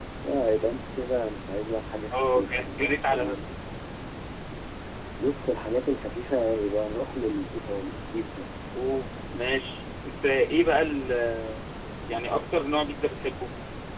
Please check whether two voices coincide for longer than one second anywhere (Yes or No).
Yes